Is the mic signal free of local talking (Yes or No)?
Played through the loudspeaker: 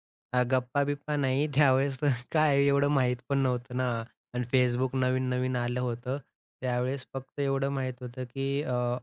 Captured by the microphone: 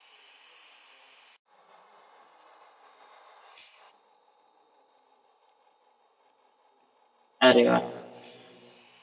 No